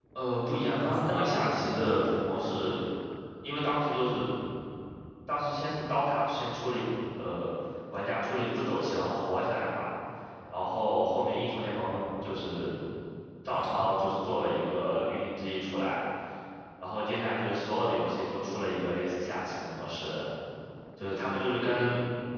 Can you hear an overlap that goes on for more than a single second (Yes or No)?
Yes